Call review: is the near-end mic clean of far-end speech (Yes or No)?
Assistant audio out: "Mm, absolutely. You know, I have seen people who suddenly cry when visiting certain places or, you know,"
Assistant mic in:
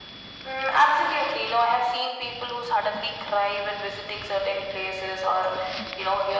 No